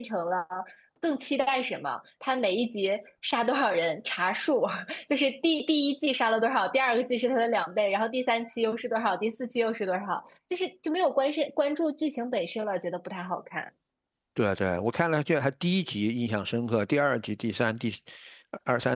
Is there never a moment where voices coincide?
Yes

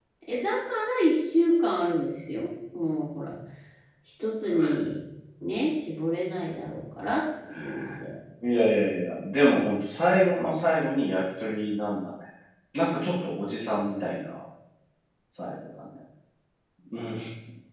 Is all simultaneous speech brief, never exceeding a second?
Yes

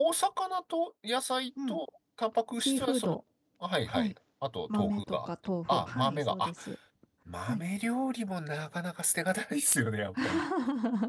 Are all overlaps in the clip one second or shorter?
No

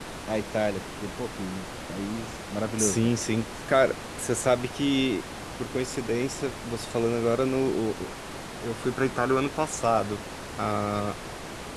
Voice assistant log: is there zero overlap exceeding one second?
Yes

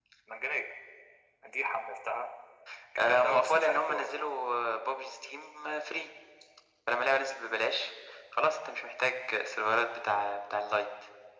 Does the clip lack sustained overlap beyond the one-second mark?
No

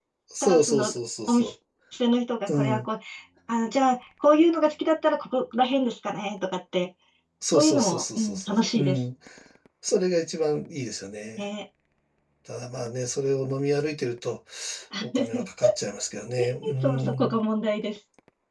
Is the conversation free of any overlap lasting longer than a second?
No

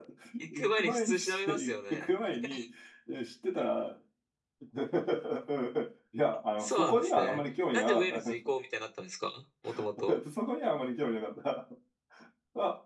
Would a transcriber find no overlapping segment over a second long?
No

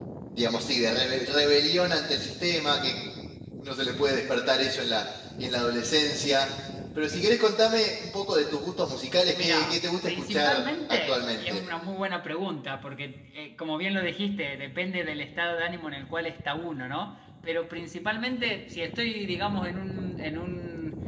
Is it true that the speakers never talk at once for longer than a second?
No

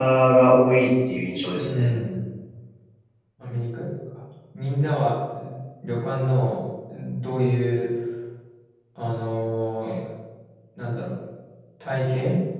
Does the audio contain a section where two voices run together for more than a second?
No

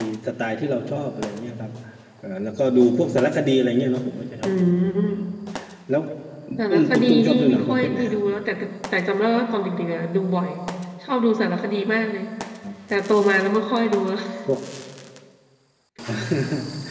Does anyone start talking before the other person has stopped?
Yes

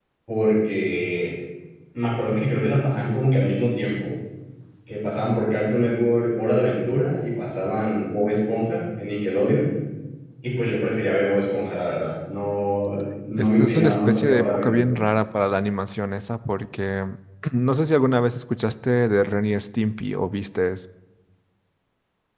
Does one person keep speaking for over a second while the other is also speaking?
Yes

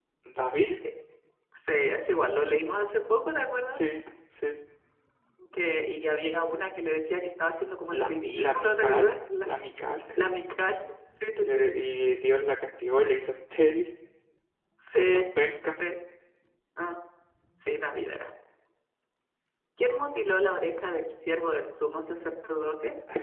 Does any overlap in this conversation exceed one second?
Yes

